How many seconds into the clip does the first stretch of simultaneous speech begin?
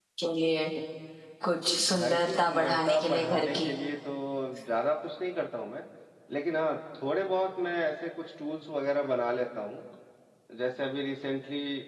1.9 s

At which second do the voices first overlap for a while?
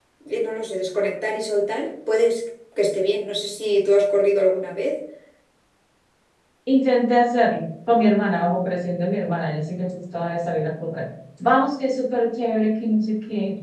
none

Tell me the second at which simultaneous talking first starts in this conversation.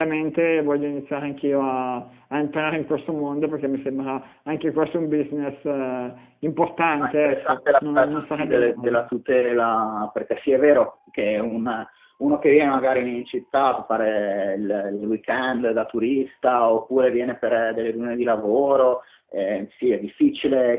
7.0 s

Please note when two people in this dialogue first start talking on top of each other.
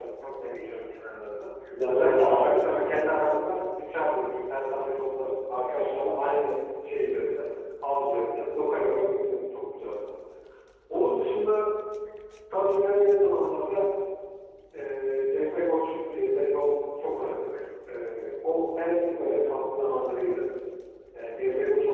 1.7 s

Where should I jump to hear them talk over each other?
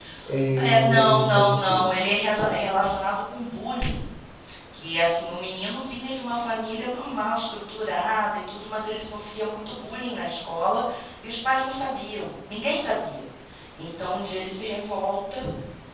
0.6 s

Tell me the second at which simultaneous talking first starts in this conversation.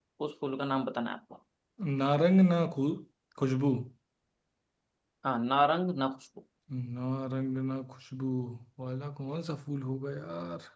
none

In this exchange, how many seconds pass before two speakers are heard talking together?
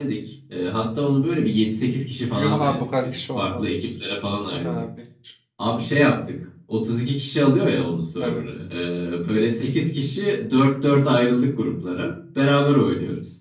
2.3 s

